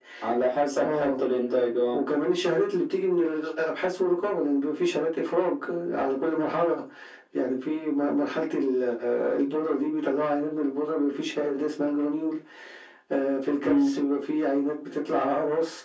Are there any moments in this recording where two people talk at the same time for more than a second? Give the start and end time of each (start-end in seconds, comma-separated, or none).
none